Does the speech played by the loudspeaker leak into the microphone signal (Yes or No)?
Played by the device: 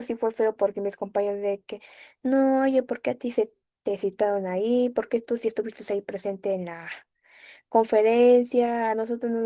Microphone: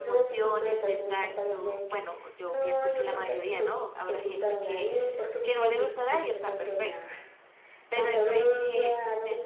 Yes